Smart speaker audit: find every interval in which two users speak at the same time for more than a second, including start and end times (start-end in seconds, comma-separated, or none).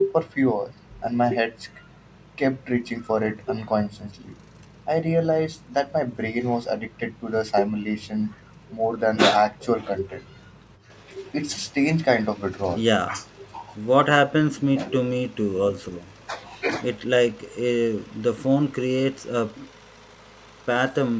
none